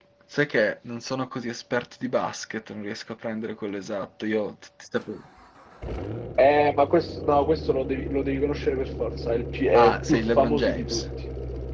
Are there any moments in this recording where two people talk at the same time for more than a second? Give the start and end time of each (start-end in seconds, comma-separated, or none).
9.7-11.0